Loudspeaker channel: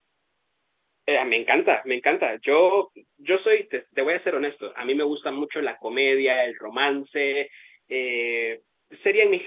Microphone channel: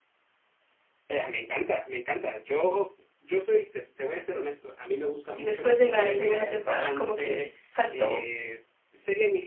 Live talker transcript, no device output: Y después de la segunda temporada, como que les faltó

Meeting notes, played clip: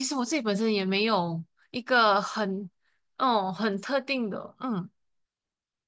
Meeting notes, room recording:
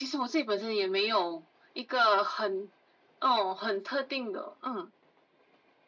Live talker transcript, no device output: none

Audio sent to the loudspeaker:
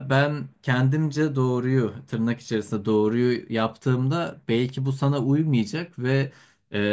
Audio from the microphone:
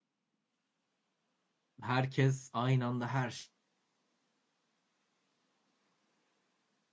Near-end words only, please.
e, herkes aynı anda her

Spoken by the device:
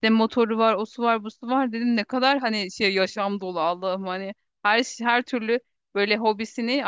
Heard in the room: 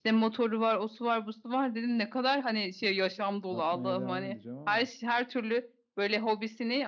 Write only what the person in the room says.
yapmaya devam edeceğim ama.

